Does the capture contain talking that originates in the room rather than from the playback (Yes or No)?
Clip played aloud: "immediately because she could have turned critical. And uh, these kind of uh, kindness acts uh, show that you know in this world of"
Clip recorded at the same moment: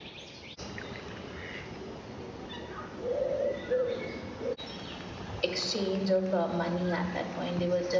Yes